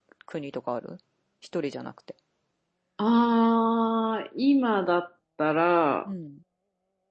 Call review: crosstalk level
none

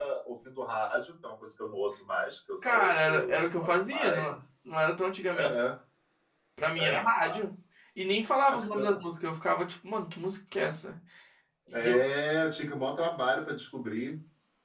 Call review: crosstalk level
present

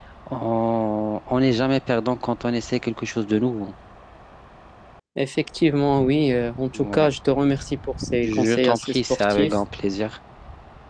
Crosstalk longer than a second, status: present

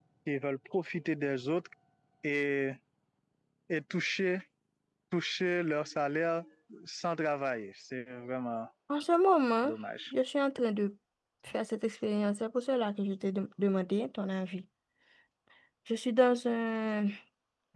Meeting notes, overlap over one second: none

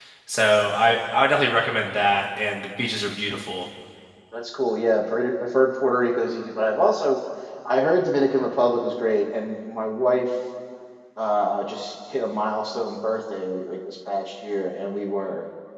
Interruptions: none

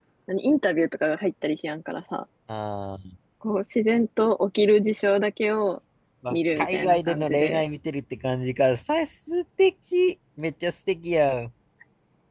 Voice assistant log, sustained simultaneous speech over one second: present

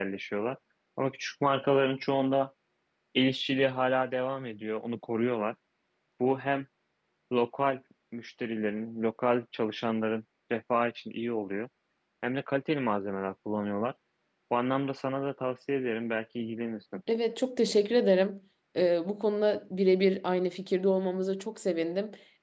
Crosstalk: none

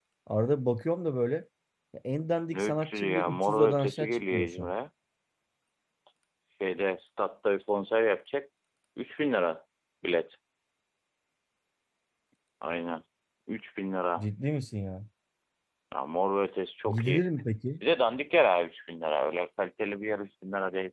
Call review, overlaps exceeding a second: present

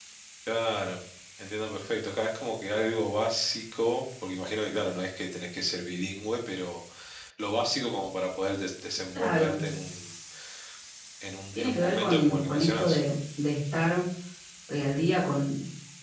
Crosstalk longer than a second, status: present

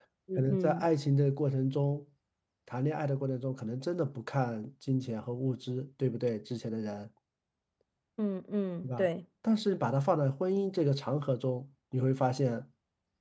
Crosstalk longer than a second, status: none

